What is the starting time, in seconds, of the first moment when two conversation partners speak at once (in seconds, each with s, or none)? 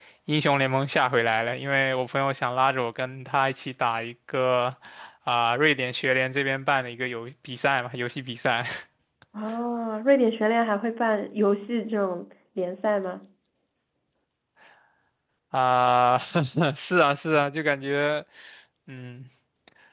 none